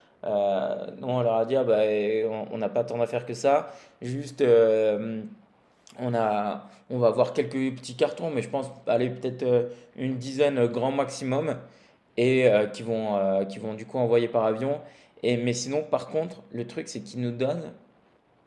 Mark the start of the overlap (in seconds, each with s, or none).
none